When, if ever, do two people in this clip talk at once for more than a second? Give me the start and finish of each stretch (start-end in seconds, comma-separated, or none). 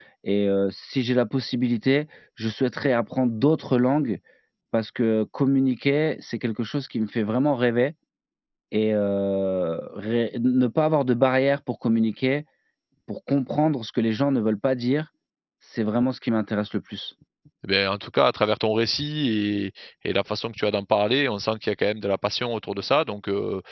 none